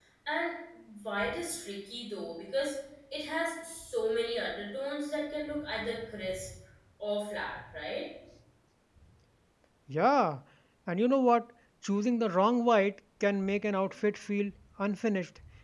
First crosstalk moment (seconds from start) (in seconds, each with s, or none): none